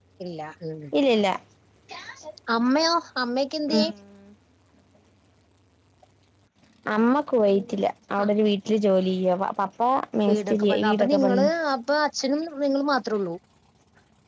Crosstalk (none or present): present